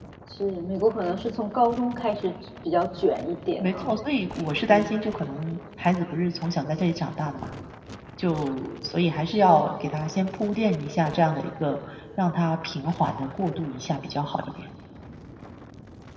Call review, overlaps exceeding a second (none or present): none